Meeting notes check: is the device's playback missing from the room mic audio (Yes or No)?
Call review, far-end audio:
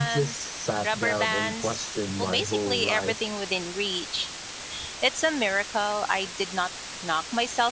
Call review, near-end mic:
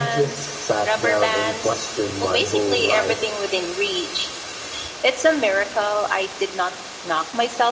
No